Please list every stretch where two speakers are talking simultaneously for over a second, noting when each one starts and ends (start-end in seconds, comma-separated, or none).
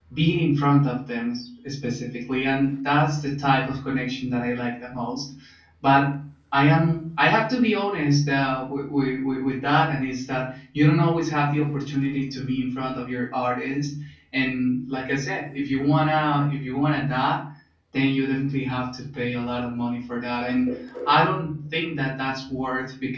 none